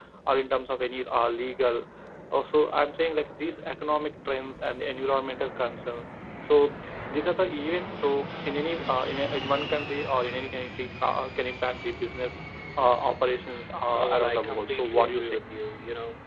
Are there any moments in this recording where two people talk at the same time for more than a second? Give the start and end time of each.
13.9-15.4

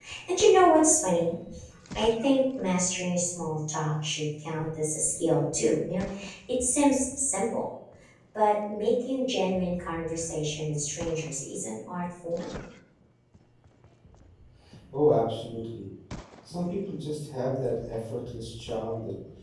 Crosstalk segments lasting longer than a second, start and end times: none

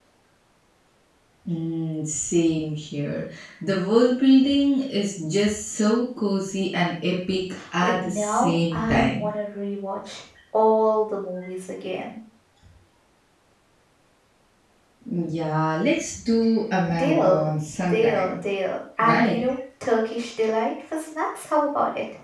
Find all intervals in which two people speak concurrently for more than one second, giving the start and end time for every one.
7.8-9.3

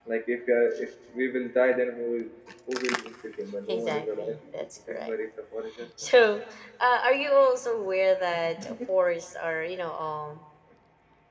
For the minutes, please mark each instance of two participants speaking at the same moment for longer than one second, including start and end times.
3.7-5.1

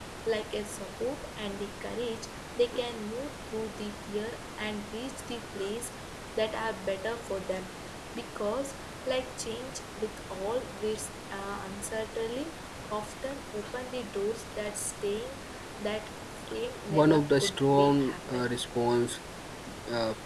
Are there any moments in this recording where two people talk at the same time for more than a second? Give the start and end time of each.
16.9-18.5

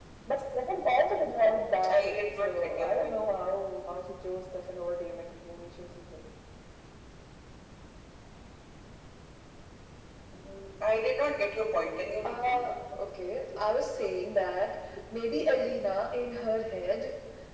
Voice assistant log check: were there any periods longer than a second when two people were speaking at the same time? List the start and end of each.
1.9-3.2

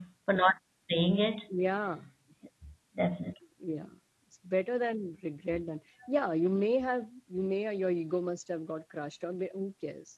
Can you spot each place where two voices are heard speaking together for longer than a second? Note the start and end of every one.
none

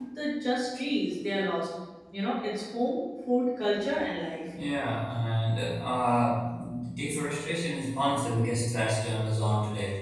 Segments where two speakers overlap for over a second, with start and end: none

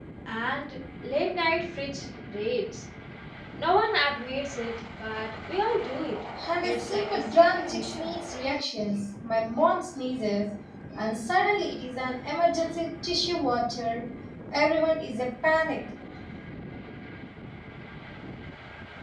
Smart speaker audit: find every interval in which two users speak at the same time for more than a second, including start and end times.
6.6-8.1

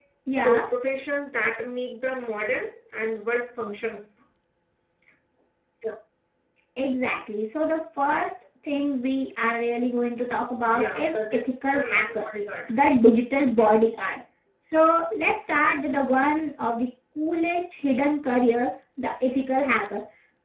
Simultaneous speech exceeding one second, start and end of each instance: 10.8-12.2

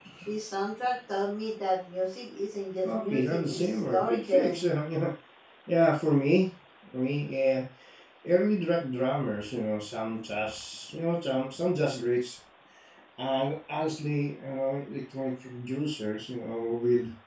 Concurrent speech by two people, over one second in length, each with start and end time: 2.8-4.7

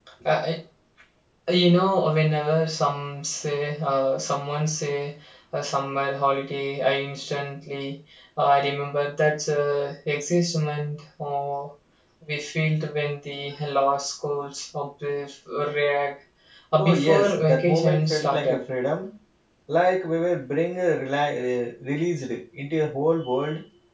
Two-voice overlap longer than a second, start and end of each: 16.8-18.6

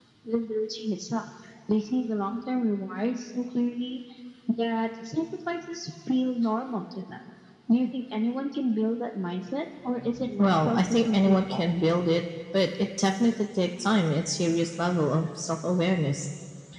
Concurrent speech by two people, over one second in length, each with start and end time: 10.4-11.7

